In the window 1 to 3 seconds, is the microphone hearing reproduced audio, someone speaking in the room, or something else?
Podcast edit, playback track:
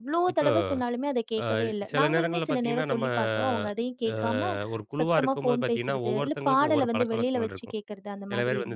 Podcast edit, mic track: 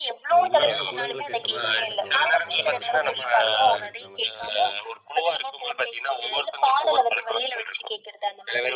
both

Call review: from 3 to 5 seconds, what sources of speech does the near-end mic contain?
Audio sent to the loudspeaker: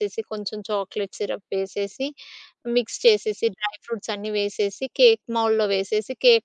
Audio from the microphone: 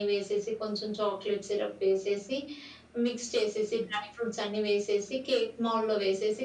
echo only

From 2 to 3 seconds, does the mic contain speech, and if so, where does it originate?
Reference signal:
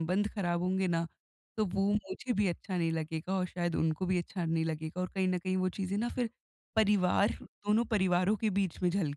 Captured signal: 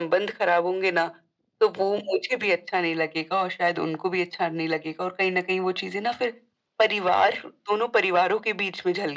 echo only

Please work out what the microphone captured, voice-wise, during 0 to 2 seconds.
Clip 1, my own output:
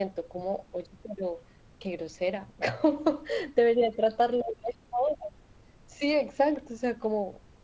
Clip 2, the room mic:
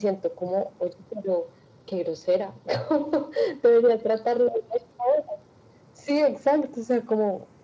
echo only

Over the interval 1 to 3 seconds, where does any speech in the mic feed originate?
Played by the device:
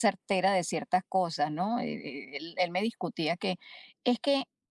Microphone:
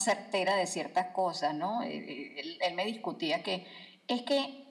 echo only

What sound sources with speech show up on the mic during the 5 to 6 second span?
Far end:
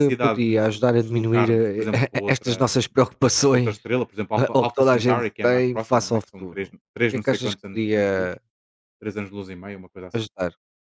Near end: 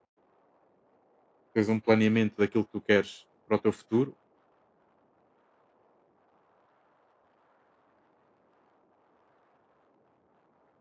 neither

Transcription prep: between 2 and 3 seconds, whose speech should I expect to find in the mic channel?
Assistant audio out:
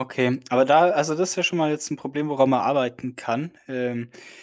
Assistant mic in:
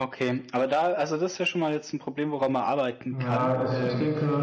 echo only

